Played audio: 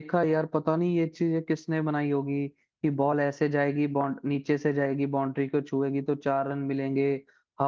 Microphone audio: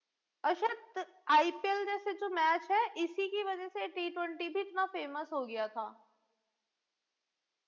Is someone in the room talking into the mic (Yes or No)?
Yes